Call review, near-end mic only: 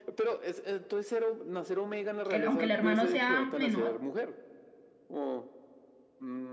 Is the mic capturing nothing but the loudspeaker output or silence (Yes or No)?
No